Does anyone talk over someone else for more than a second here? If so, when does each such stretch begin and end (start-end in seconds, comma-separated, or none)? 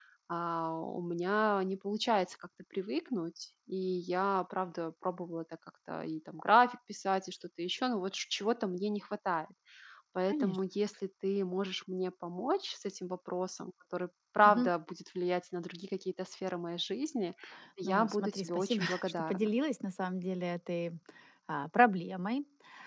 17.8-19.6